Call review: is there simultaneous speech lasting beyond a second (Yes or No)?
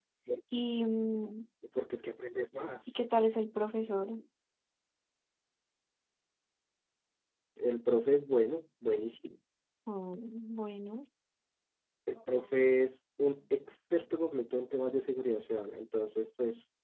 No